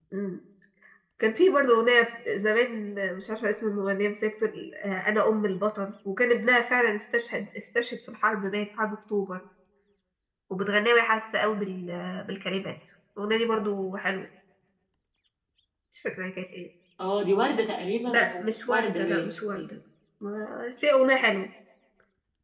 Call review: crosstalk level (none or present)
present